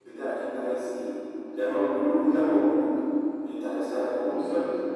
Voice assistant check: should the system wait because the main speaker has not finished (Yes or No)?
Yes